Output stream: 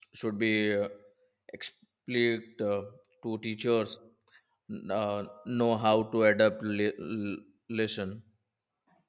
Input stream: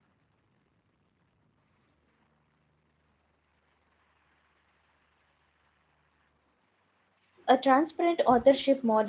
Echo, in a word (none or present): none